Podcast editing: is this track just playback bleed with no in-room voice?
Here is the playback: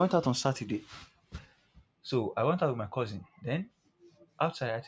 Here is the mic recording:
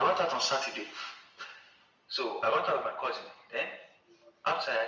Yes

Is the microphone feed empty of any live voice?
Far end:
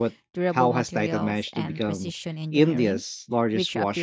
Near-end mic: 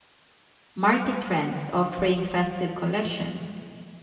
No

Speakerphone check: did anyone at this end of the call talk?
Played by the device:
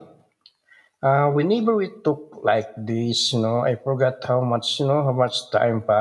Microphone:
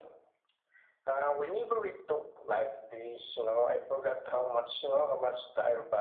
No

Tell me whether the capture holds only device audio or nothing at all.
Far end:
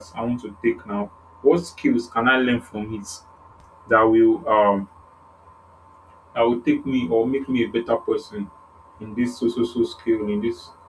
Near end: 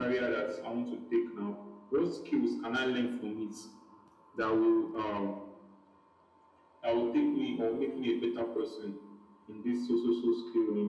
Yes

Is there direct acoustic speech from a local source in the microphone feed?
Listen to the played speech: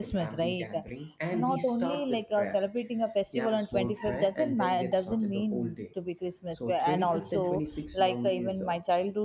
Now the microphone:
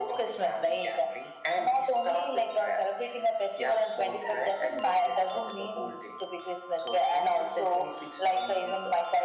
No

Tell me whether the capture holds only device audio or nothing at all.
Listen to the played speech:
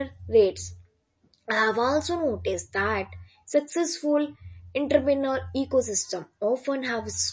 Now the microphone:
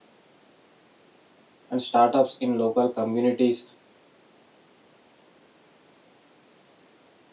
No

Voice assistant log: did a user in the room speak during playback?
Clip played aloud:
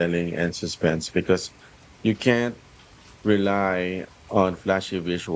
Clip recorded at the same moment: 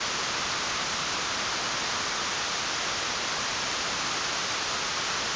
No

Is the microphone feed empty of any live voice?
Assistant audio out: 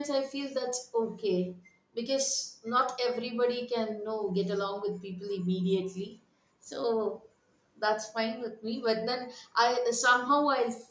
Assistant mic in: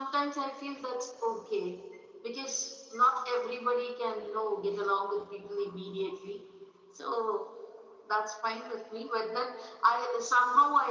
Yes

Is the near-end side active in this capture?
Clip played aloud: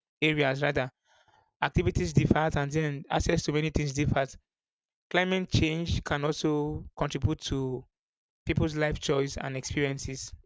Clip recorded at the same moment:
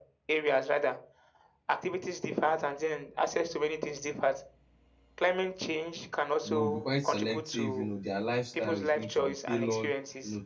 Yes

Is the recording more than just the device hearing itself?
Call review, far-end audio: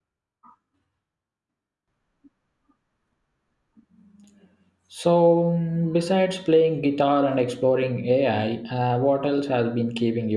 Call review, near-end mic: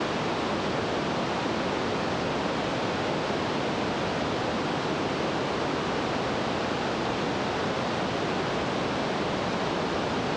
No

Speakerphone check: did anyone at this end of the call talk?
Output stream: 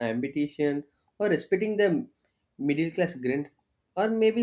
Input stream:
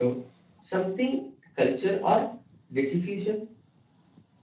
Yes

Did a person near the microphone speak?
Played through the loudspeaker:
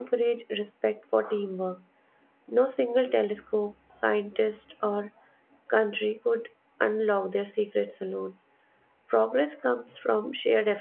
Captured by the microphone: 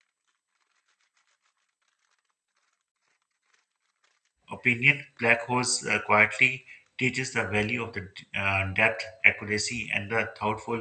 Yes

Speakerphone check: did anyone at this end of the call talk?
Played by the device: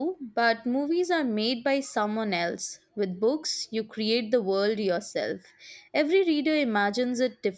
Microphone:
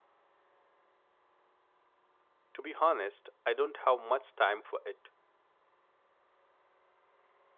Yes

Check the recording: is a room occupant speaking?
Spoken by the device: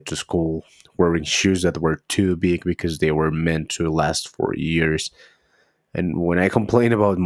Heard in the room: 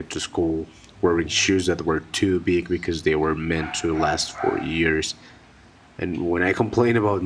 No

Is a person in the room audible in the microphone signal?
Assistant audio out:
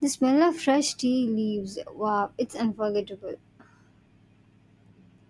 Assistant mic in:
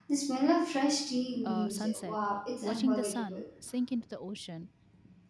Yes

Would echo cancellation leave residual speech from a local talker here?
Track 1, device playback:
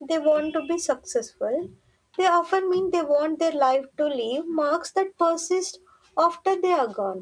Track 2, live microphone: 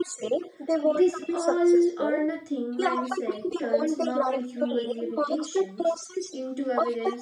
Yes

